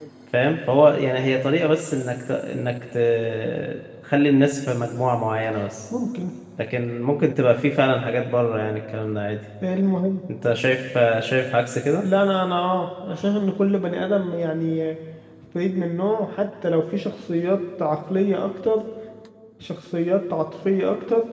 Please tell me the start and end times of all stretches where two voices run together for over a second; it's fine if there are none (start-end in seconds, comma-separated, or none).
none